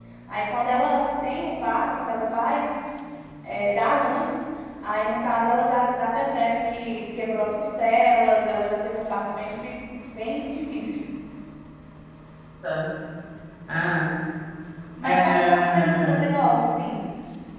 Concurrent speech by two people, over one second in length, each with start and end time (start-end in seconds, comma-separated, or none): 15.0-16.4